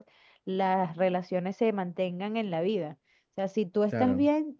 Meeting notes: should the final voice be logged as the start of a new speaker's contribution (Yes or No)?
No